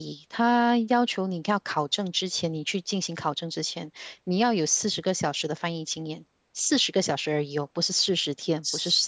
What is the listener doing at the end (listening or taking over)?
taking over